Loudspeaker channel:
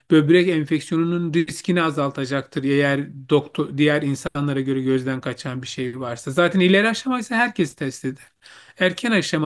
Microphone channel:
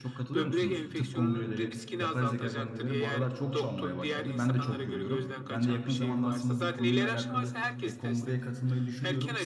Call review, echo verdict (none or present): present